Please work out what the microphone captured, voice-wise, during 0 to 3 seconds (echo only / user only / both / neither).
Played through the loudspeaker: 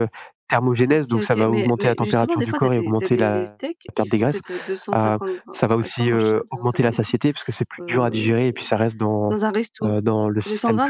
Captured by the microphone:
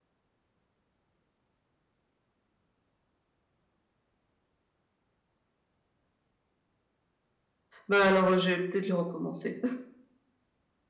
neither